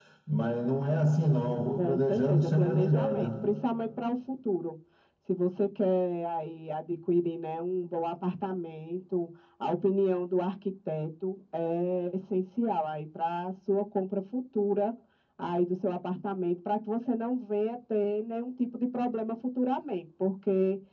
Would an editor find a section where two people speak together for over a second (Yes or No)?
Yes